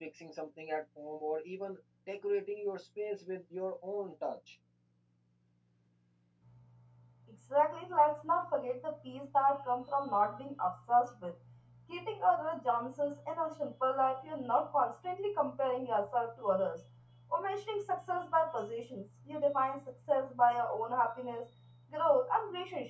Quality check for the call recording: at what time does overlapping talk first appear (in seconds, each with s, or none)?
none